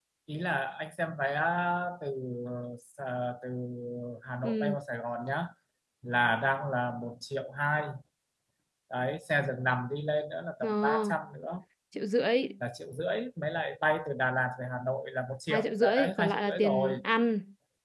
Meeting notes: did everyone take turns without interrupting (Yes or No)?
No